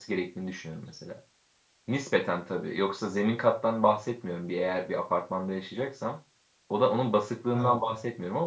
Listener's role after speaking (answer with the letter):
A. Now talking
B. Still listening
B